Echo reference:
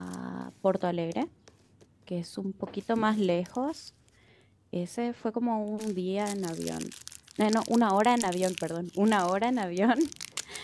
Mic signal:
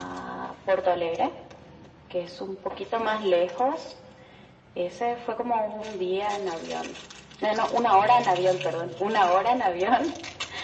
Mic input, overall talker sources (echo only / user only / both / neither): echo only